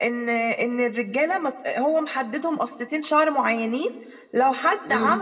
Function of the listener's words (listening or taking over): listening